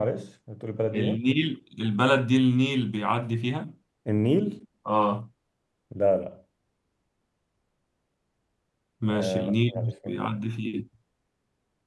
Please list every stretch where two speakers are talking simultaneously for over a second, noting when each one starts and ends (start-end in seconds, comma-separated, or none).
9.1-10.3